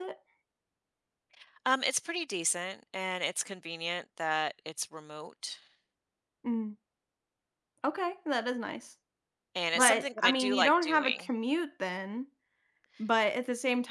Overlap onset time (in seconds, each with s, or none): 9.8 s